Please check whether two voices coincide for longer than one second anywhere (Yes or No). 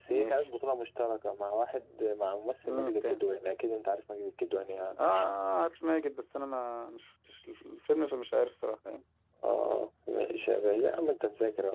No